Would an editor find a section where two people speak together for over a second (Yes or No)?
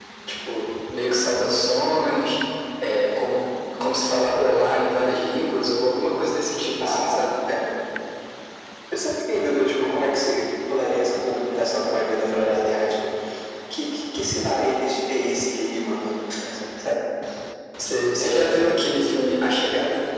No